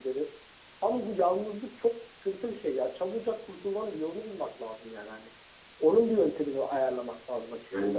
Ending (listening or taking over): listening